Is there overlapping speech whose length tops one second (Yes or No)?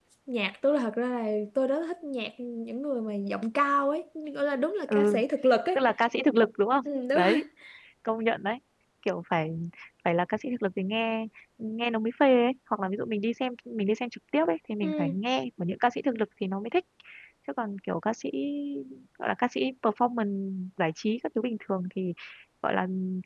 No